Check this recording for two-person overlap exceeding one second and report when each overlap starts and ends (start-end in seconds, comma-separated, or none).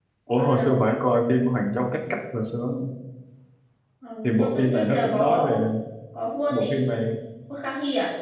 4.2-5.5